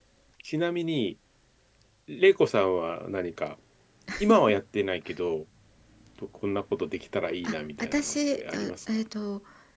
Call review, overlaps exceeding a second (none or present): present